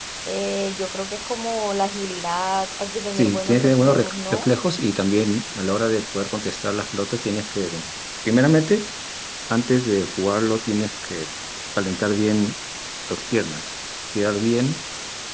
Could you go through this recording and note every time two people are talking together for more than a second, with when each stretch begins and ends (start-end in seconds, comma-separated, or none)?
3.2-4.5